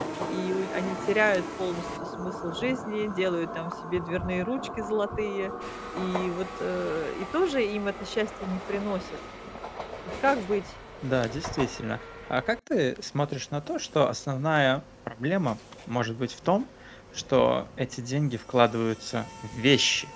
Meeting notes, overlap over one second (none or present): none